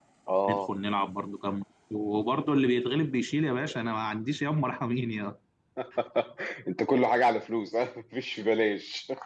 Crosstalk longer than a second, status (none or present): none